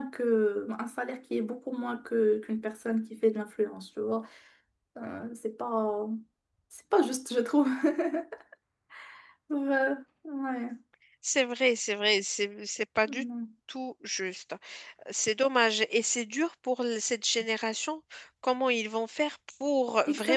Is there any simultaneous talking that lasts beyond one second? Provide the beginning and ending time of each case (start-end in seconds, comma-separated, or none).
none